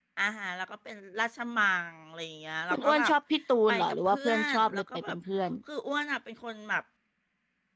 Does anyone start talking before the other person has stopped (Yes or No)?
Yes